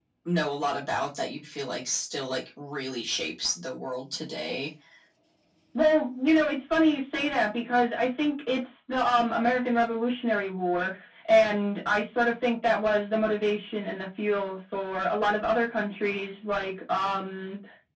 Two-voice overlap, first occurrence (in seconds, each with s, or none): none